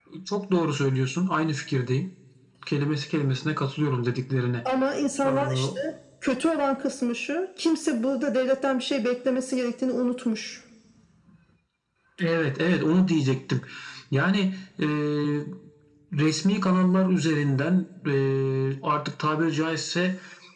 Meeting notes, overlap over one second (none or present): none